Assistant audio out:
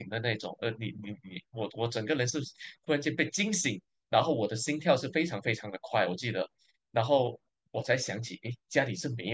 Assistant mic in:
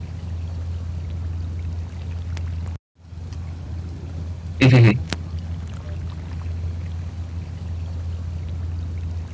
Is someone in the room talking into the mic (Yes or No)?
Yes